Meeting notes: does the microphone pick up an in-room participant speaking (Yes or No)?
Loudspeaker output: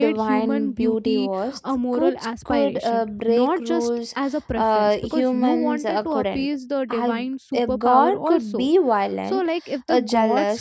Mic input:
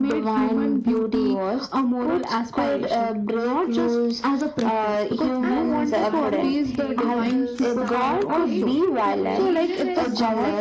Yes